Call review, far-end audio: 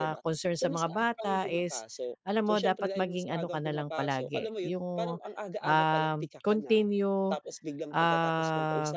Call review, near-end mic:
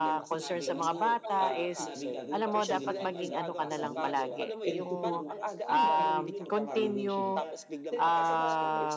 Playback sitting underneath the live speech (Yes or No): No